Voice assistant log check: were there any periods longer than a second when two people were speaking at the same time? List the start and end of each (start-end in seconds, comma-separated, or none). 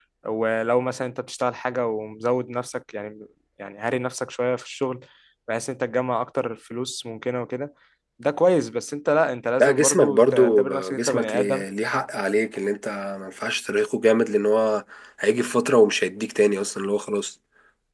9.6-11.7